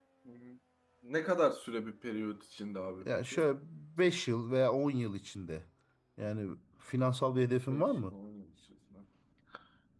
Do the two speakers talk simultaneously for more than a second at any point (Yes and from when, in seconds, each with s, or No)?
No